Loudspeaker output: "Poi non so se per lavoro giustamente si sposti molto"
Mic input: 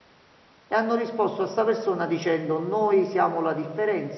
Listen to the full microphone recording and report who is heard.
user only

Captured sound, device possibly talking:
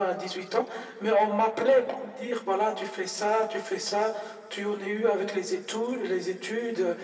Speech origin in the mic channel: echo only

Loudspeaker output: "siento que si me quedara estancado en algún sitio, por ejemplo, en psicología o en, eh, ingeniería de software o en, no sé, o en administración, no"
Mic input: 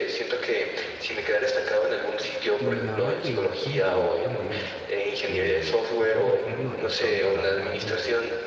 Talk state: both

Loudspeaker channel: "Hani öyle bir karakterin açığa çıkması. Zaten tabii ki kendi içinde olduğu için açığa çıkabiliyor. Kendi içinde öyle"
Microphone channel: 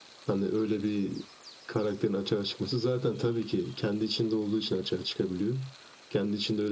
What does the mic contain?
echo only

